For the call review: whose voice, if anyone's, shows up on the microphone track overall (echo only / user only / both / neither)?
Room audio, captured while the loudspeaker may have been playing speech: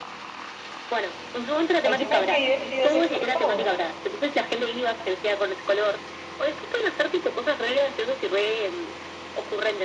both